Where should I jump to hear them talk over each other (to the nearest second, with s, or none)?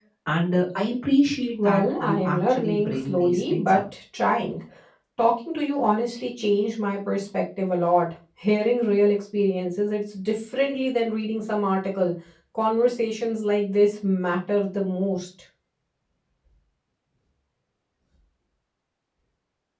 2 s